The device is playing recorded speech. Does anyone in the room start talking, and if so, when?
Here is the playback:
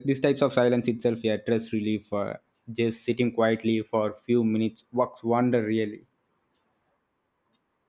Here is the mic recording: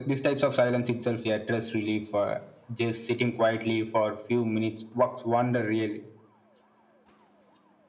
none

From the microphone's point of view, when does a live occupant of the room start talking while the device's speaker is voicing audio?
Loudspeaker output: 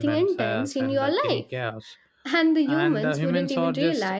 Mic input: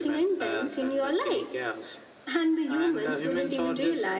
none

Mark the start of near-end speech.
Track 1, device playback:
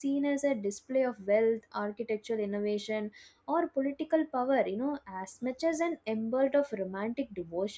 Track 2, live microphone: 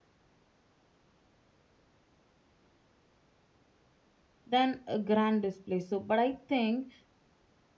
4.5 s

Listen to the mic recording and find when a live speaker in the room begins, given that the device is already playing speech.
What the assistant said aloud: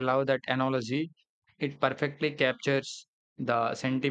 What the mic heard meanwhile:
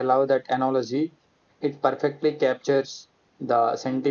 none

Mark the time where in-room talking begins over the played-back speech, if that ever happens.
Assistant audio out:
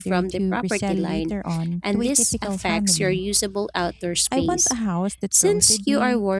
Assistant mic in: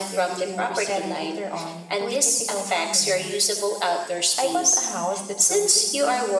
none

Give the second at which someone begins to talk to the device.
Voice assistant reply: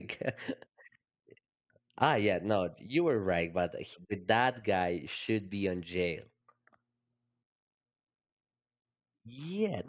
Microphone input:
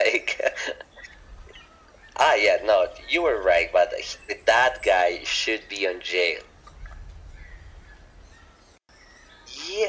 none

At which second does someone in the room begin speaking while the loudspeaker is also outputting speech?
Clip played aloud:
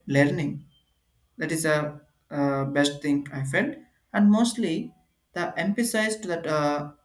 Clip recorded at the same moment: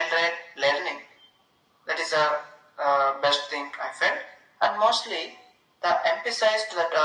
none

